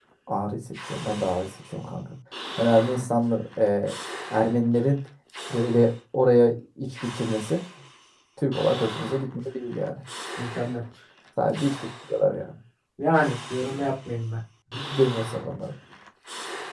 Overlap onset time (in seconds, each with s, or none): none